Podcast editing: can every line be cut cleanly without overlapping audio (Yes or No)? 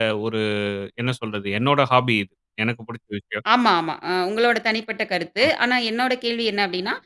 Yes